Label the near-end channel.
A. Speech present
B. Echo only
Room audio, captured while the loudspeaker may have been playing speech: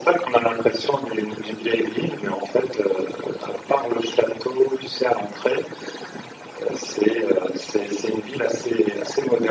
B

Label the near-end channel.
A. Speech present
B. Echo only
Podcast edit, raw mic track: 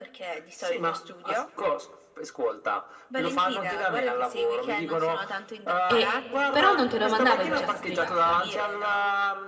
A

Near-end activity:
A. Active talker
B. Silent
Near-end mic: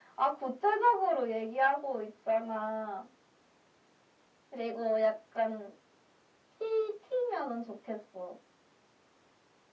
B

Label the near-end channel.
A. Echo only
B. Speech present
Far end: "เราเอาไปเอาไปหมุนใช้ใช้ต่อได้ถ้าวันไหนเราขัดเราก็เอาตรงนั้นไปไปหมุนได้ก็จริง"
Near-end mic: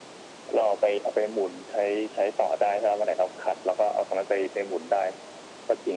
A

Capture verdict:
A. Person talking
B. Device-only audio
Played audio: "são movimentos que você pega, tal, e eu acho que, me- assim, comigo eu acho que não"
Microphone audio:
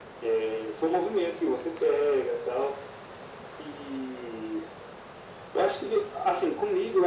B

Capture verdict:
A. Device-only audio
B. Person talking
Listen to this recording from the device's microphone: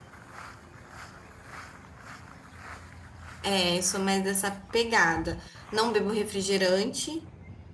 B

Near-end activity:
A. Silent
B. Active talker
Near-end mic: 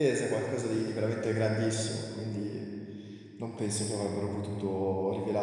B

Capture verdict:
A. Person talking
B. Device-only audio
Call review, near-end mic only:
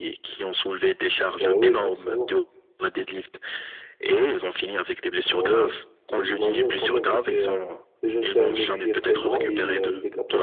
A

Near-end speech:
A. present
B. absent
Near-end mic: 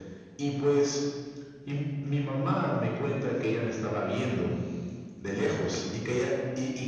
B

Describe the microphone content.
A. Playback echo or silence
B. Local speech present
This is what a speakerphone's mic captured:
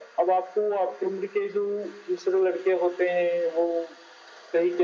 A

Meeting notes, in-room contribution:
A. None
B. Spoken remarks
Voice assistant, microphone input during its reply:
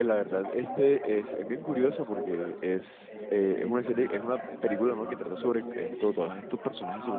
B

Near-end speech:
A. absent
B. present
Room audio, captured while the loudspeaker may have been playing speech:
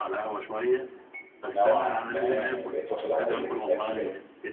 B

